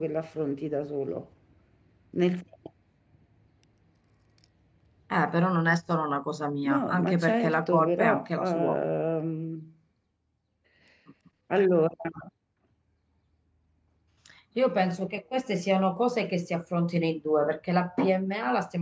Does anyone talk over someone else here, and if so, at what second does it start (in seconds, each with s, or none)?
6.6 s